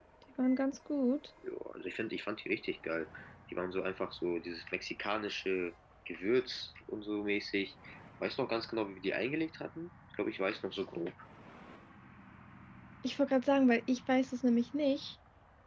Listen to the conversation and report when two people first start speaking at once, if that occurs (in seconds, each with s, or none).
none